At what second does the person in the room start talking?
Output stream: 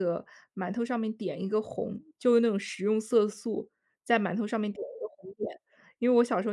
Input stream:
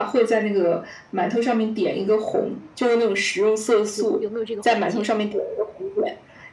3.9 s

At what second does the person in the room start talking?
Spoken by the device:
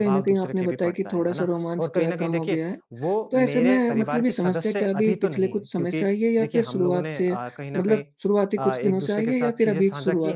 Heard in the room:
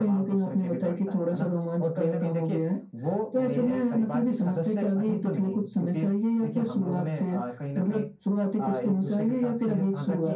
none

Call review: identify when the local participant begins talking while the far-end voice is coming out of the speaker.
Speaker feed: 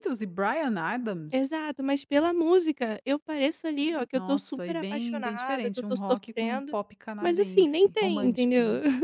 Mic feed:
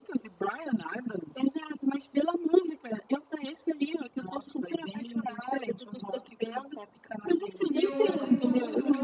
7.7 s

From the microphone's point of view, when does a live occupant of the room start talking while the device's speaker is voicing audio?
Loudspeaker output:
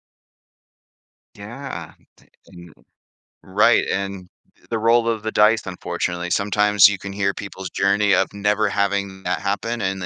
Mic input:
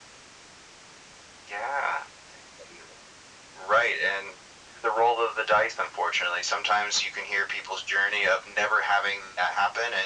none

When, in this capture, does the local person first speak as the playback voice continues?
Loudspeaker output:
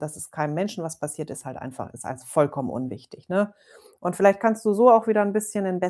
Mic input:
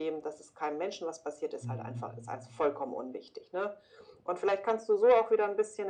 1.6 s

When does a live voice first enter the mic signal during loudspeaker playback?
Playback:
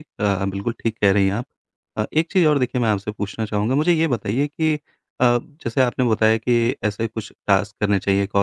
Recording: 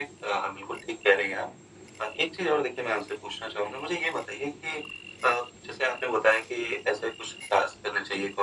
none

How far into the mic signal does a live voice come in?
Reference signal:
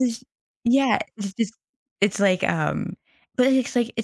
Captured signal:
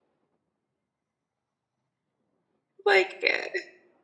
2.8 s

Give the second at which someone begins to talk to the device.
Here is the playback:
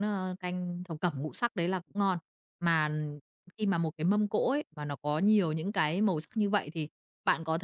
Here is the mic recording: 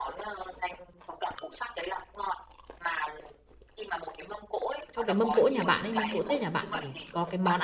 4.9 s

